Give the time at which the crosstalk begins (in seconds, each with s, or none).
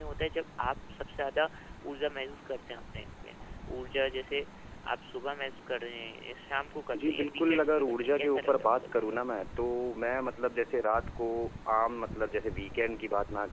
6.9 s